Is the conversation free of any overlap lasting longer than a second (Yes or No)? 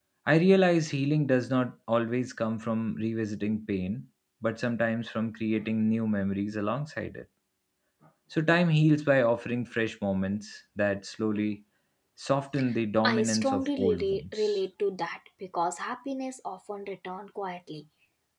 No